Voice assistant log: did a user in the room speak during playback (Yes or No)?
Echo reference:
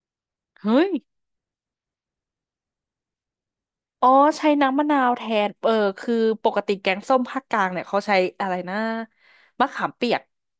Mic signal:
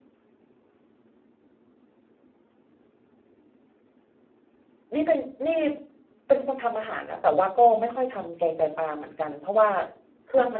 Yes